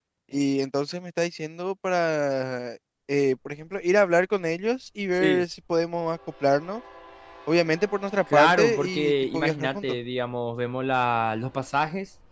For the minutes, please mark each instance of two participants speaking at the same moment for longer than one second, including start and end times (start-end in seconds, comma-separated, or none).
8.3-10.0